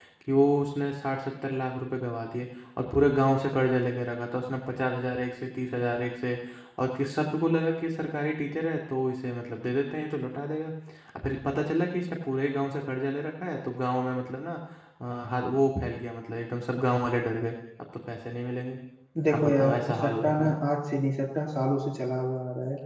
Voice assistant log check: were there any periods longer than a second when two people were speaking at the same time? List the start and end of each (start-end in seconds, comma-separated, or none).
19.3-20.6